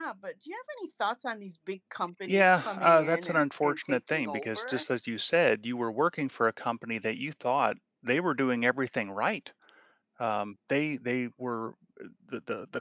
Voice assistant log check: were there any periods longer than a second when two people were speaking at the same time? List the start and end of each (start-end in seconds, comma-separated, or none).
2.3-4.8